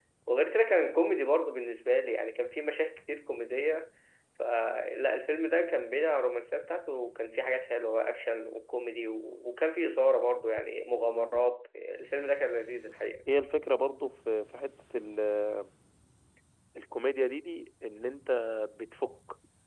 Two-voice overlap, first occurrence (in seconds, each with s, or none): none